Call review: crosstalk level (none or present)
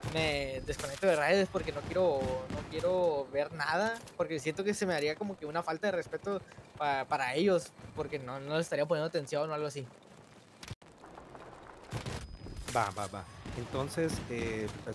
none